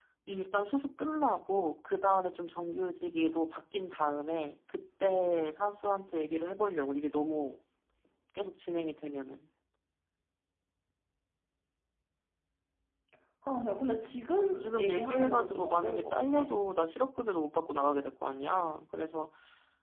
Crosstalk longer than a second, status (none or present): present